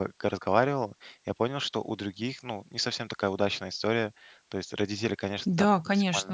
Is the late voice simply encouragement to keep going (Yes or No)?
No